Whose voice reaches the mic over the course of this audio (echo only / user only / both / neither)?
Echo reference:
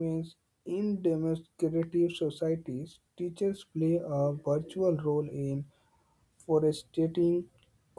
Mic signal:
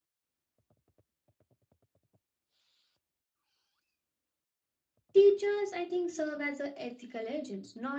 user only